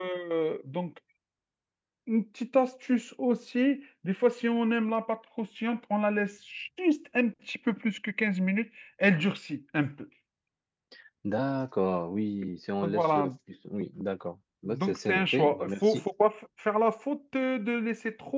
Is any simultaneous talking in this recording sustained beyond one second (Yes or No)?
Yes